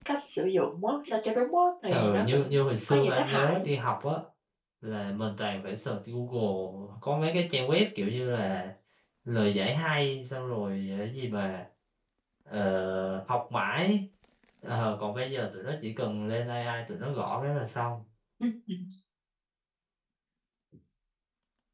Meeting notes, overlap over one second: present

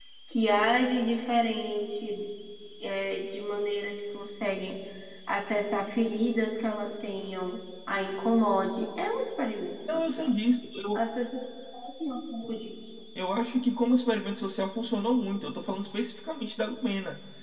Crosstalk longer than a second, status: none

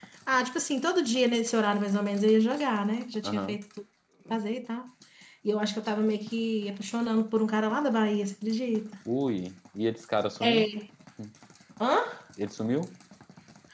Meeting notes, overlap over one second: none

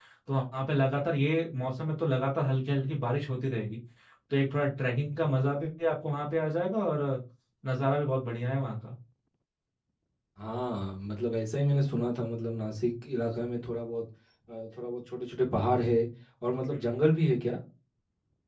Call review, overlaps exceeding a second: none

